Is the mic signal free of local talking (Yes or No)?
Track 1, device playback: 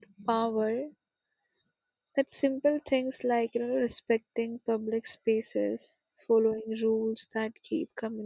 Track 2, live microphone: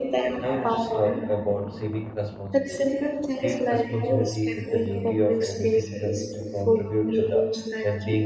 No